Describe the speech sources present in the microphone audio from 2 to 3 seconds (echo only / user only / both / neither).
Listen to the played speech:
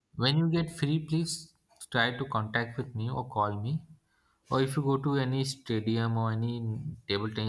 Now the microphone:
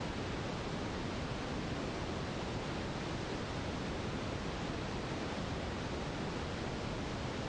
neither